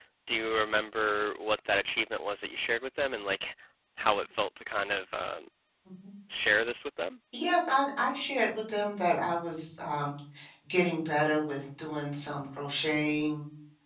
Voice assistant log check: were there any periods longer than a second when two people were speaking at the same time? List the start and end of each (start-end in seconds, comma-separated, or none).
none